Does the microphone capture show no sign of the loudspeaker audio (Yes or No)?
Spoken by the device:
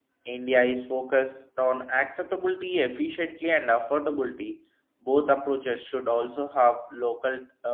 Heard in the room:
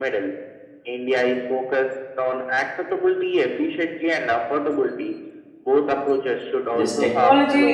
No